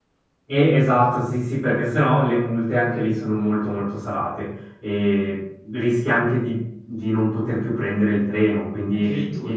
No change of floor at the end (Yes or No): No